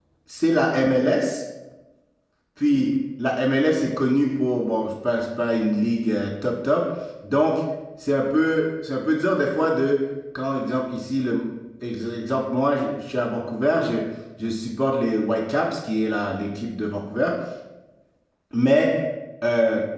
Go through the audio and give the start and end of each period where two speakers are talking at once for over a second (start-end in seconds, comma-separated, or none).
none